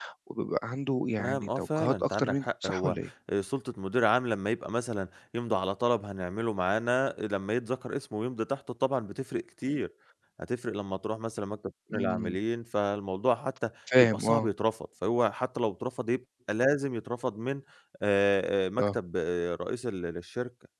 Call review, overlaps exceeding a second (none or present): present